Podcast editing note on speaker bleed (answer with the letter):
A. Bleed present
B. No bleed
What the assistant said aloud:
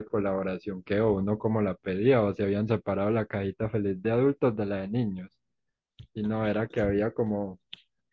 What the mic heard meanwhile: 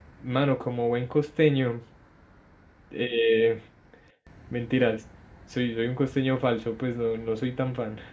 B